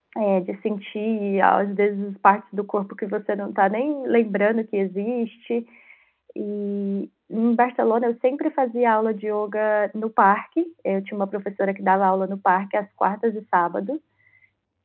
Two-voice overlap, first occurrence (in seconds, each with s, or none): none